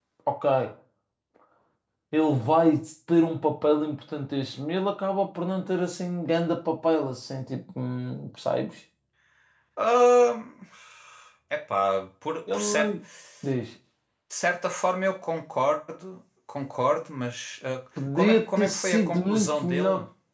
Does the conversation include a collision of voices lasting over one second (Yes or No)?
Yes